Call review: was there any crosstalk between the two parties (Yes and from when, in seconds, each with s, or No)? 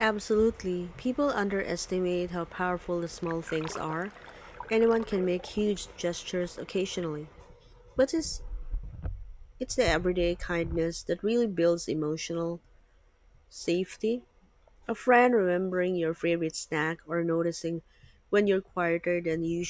No